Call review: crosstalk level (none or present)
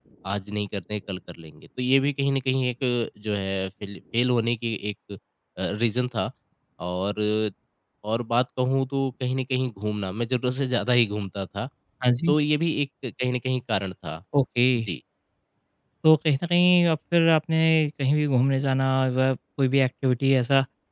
none